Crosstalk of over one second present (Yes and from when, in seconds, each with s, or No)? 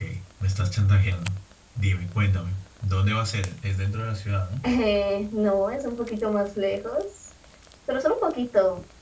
No